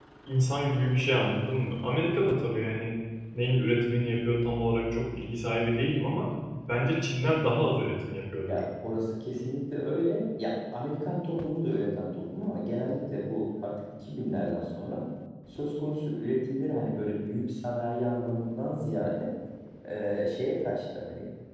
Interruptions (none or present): none